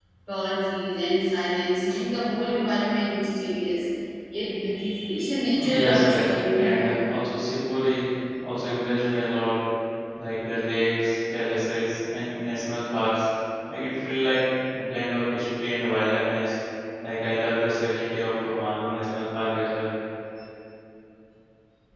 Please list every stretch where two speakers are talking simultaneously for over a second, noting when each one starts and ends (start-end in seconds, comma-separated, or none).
5.5-7.0